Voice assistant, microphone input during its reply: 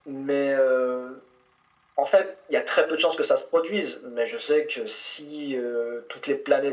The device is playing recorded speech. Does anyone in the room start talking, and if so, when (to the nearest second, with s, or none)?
none